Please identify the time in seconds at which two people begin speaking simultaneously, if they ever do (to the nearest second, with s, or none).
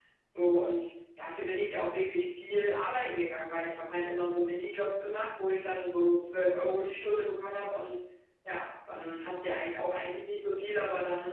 none